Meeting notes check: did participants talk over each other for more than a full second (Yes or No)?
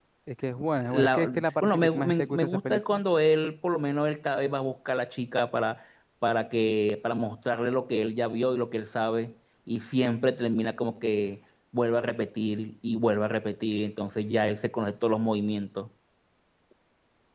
Yes